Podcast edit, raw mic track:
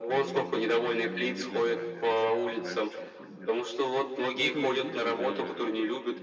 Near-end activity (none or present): present